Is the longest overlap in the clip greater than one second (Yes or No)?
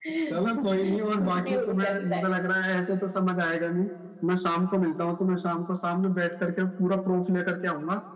Yes